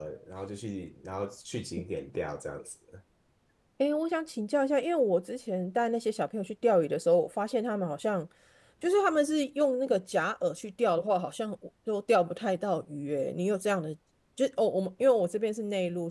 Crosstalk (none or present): none